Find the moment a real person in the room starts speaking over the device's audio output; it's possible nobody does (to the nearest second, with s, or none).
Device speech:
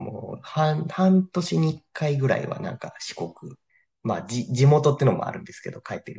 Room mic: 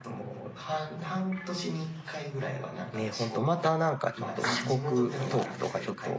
3 s